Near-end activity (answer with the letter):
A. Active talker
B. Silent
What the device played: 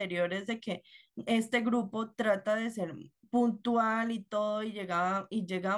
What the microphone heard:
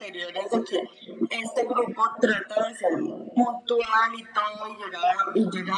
B